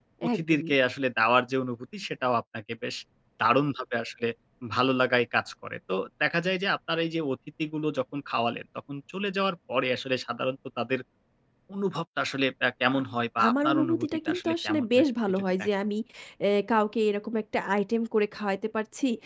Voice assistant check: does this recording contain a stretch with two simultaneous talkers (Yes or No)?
Yes